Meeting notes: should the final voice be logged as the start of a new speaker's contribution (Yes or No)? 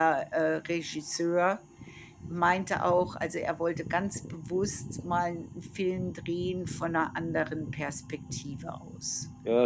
Yes